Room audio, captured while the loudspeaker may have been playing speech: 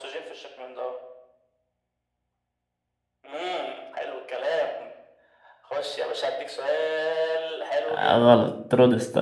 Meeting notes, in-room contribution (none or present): present